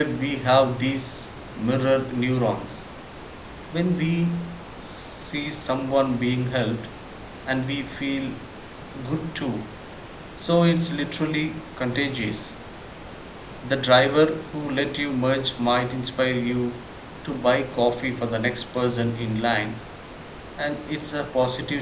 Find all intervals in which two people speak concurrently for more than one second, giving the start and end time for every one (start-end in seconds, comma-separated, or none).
none